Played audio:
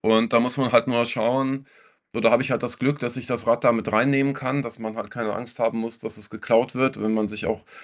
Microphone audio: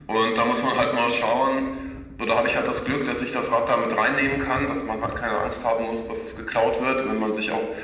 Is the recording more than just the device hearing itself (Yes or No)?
No